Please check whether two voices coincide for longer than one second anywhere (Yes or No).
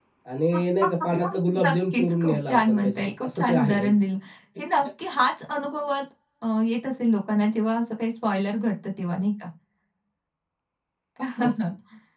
Yes